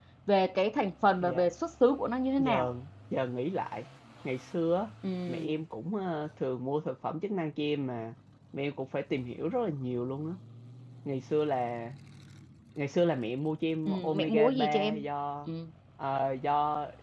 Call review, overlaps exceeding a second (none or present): present